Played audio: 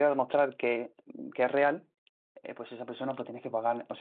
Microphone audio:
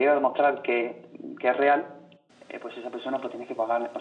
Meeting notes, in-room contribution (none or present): none